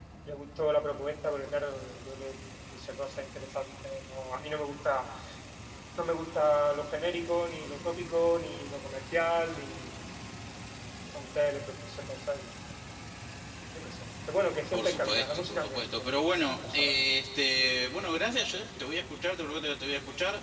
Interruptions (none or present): present